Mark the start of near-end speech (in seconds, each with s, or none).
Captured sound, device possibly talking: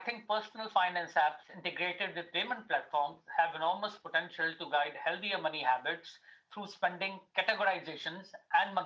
none